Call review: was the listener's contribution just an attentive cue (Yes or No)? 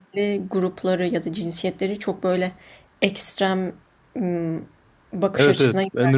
No